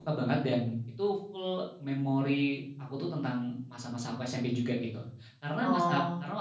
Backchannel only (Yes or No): Yes